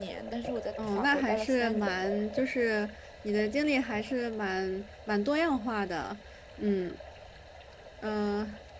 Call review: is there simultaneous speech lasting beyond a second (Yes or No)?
Yes